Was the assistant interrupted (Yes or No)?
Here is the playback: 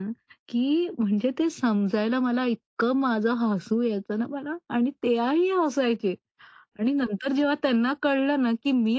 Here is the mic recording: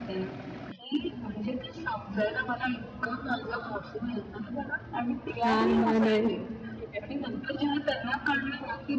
Yes